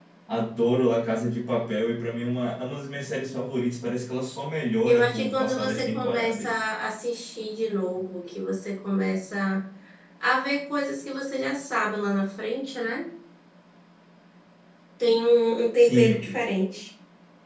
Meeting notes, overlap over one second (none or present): present